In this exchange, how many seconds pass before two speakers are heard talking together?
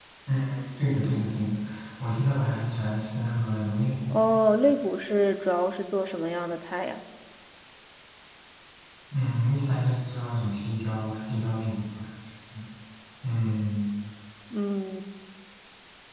none

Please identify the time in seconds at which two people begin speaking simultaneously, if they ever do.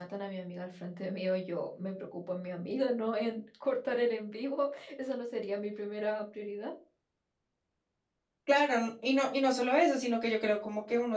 none

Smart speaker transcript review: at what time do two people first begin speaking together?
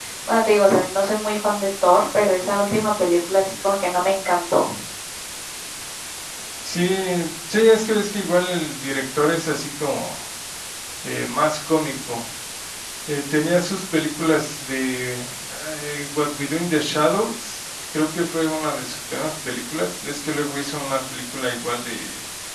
none

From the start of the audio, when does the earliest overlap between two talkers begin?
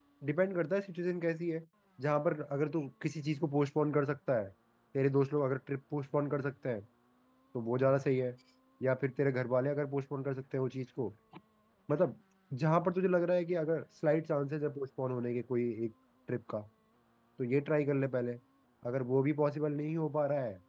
none

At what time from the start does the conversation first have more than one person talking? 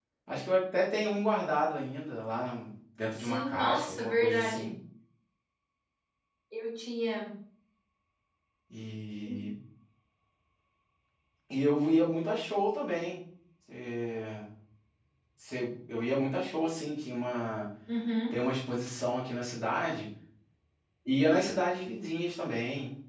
3.2 s

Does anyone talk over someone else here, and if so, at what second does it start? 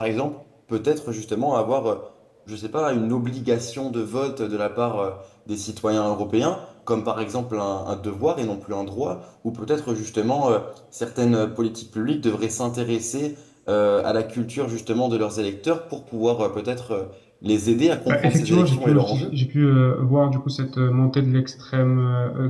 18.1 s

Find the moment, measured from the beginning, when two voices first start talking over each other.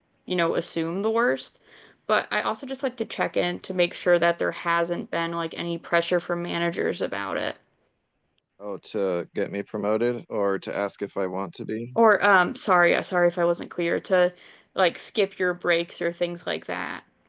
none

